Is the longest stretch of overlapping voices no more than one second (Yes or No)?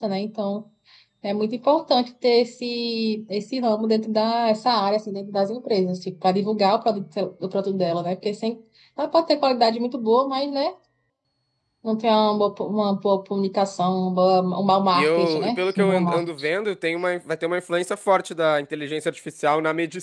No